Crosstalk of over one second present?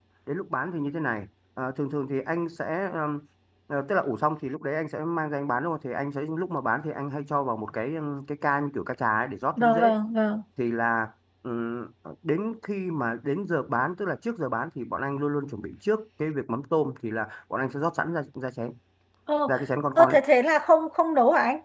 No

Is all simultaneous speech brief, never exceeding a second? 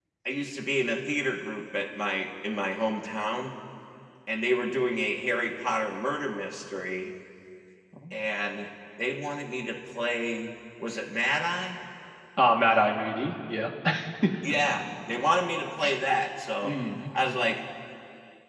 Yes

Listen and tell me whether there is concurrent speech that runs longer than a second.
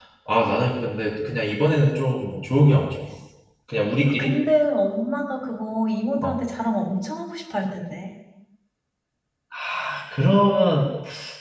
No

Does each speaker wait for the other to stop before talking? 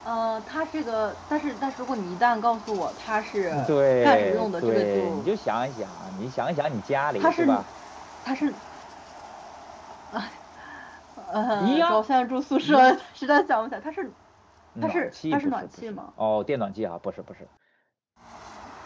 No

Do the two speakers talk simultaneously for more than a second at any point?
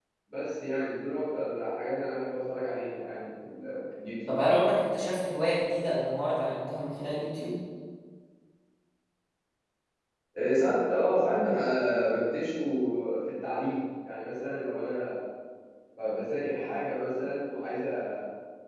No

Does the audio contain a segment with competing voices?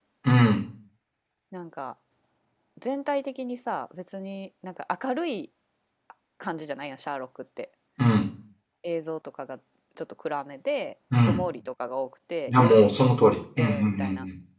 Yes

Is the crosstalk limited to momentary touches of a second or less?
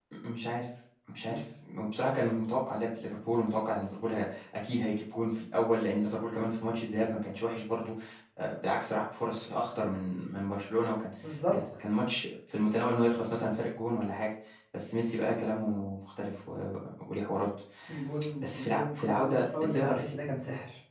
No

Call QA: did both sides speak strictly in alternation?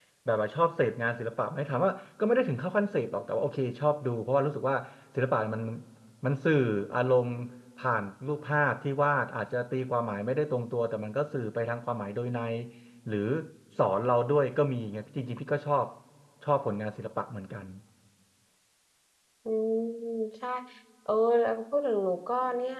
Yes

